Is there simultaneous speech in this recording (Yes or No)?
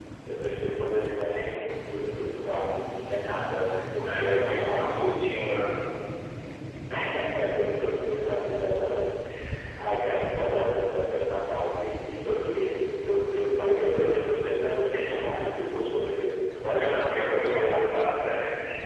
Yes